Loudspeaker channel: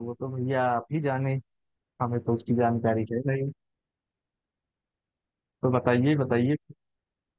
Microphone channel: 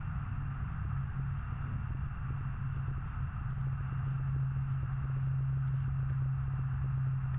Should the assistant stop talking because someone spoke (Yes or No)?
No